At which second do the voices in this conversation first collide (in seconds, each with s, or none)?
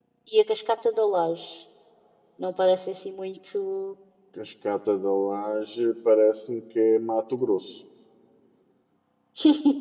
none